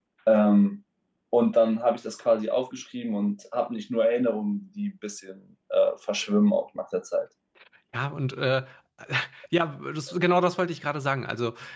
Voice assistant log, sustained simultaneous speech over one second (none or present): none